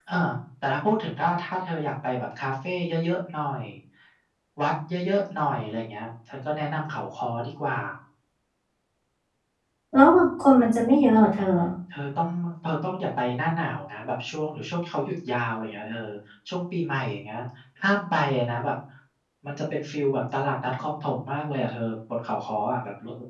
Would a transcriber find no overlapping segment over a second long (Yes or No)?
Yes